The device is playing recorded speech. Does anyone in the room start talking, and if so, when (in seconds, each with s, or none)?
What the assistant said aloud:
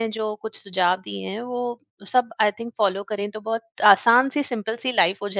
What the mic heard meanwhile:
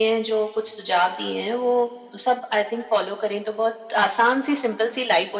none